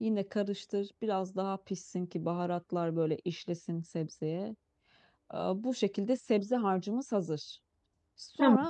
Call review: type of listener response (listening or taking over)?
listening